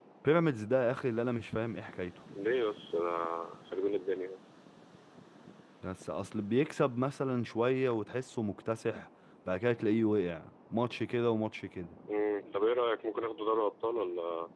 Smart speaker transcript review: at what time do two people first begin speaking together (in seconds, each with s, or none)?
none